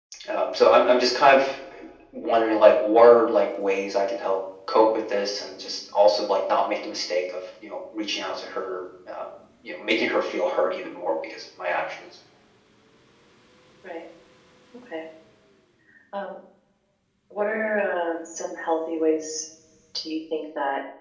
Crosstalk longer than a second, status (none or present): none